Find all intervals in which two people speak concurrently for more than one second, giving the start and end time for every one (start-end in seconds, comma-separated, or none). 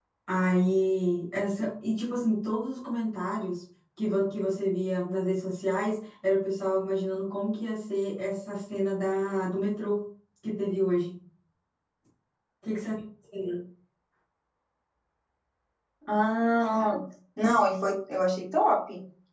none